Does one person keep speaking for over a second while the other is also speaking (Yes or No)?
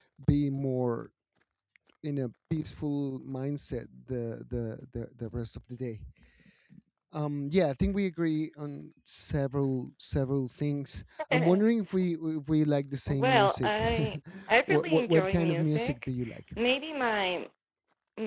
Yes